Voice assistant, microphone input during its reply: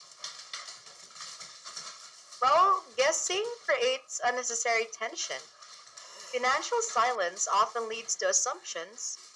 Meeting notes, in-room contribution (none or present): none